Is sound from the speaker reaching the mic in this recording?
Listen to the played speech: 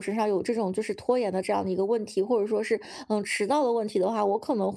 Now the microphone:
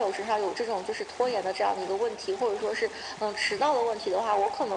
Yes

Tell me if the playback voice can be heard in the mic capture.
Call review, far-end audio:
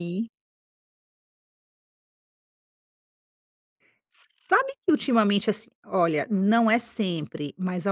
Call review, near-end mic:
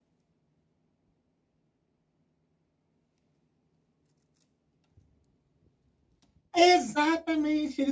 No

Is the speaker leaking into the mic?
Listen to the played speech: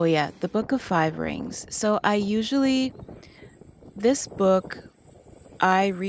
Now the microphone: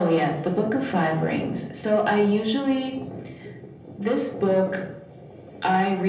Yes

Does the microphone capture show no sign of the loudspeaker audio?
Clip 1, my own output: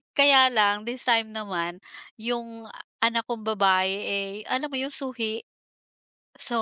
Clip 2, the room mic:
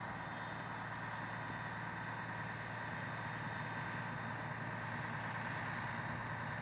Yes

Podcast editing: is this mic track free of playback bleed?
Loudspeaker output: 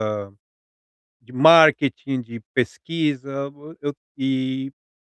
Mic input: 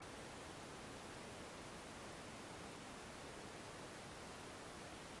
Yes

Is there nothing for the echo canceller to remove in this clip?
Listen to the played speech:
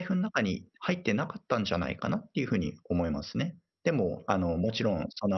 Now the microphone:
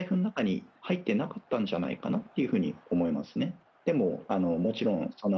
No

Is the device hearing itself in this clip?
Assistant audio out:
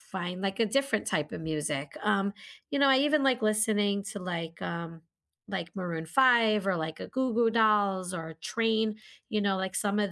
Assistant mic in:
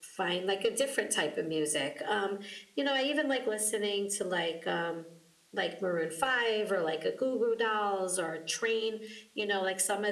Yes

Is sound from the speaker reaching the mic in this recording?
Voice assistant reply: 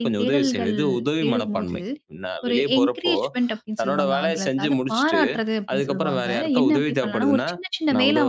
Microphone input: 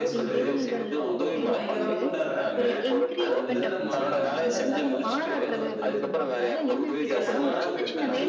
Yes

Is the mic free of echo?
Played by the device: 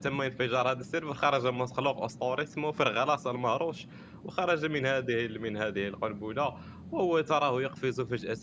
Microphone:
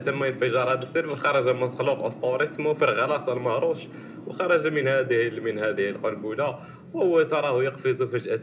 No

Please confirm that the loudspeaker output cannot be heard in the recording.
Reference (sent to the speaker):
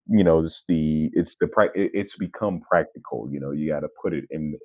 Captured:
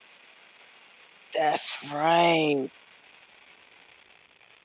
Yes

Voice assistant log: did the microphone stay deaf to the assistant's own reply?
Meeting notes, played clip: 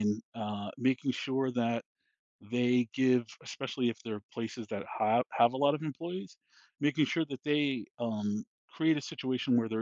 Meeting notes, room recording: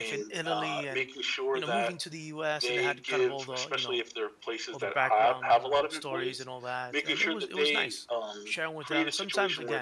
No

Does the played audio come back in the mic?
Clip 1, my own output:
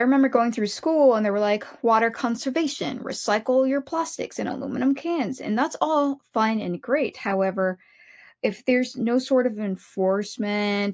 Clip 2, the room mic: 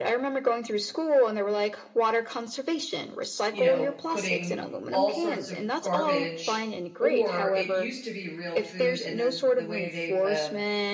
Yes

